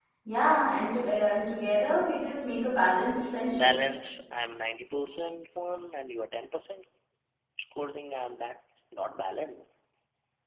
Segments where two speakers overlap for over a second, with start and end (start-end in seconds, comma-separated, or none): none